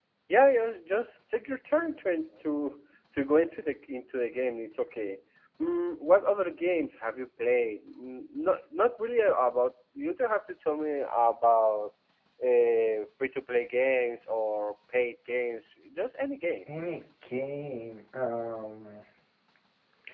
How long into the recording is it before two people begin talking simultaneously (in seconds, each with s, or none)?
none